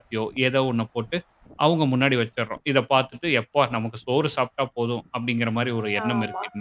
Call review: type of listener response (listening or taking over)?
taking over